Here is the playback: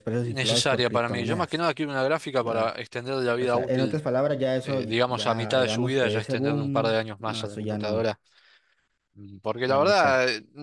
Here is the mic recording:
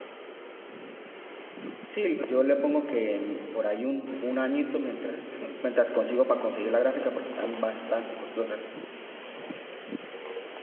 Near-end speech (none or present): present